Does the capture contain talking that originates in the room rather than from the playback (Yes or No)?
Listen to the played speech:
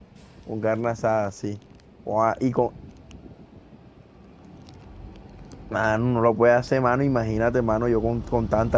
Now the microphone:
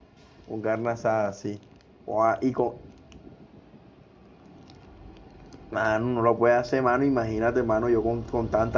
No